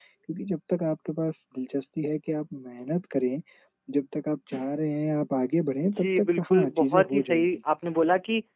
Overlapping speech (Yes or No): Yes